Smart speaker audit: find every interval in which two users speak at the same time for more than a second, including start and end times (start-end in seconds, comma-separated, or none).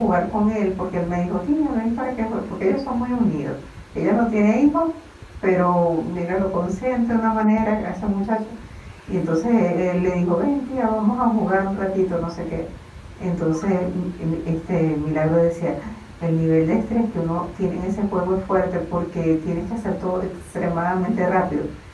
none